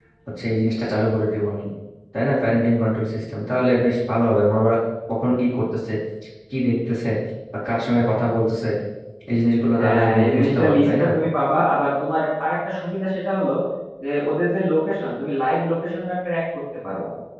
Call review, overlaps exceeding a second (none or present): present